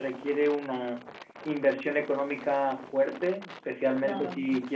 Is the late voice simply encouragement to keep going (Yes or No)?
Yes